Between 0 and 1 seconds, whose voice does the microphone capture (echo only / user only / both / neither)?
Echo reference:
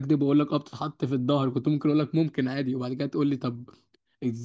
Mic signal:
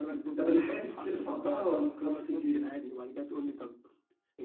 both